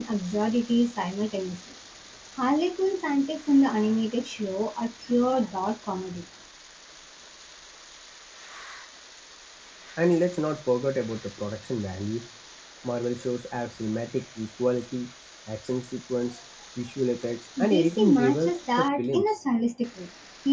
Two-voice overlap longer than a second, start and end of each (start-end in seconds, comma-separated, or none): 17.7-19.4